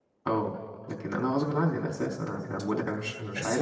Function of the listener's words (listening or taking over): taking over